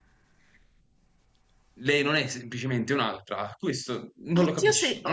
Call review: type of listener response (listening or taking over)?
taking over